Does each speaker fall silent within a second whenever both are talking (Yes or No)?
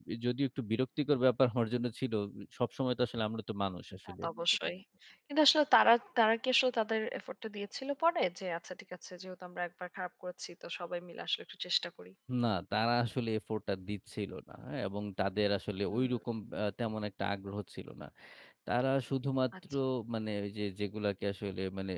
Yes